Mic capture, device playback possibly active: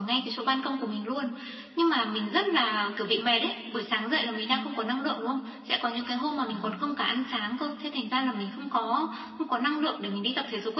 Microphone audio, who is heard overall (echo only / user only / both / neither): both